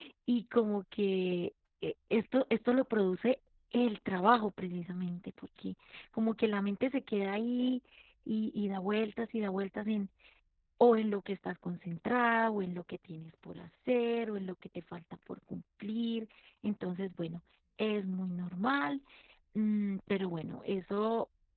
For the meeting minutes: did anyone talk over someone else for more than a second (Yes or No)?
No